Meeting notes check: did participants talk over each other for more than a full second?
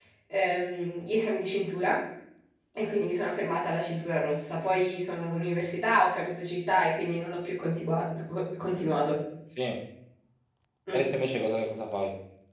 No

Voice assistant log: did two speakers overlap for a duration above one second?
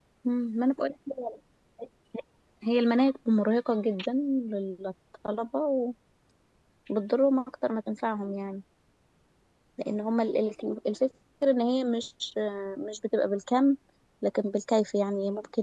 No

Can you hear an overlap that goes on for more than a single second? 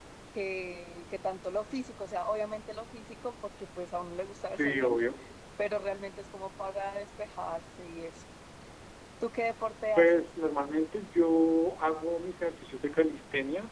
No

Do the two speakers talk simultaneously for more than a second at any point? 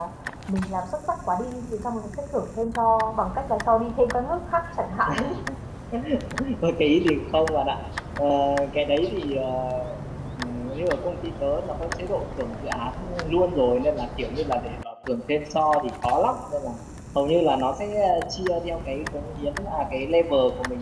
No

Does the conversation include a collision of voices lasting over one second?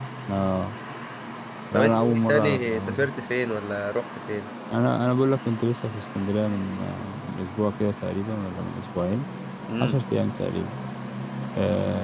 Yes, from 1.8 s

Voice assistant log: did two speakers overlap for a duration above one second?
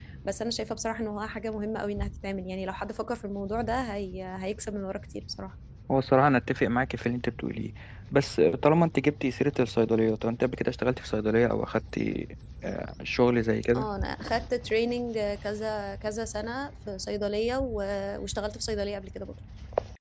No

